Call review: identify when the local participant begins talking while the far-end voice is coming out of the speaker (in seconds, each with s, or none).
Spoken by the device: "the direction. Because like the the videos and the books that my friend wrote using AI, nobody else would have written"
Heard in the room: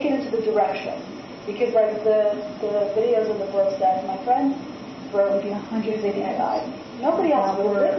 5.3 s